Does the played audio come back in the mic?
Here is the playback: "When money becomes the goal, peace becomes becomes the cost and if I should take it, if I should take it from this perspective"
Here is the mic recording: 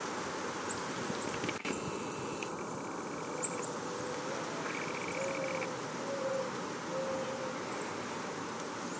No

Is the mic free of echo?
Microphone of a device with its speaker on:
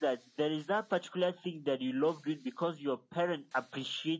No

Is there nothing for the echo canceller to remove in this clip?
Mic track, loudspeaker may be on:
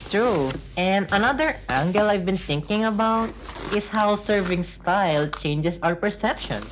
No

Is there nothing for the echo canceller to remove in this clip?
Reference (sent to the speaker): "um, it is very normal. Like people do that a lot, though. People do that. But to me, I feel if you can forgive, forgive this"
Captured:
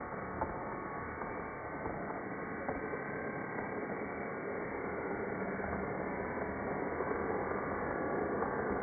Yes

